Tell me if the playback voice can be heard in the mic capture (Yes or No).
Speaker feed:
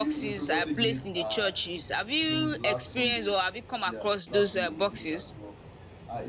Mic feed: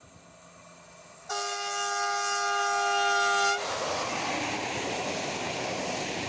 No